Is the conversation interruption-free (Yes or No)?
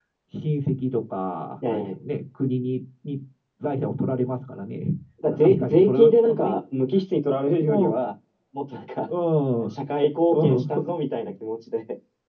No